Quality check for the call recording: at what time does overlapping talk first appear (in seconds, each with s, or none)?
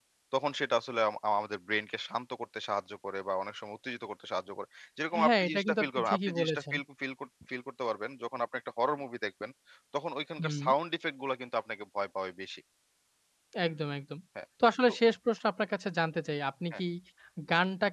5.2 s